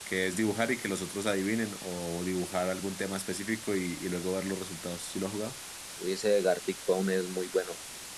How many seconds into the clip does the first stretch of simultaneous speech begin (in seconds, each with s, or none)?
none